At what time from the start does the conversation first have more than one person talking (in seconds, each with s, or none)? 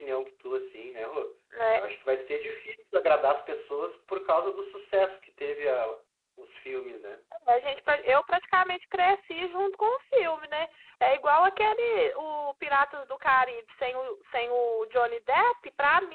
none